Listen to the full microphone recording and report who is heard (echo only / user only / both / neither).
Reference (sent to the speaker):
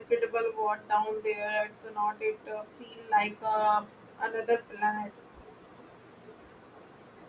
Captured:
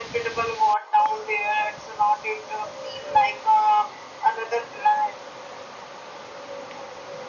echo only